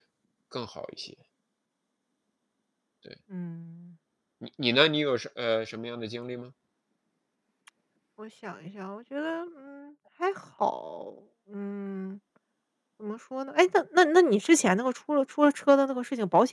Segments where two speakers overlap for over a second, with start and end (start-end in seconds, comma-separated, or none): none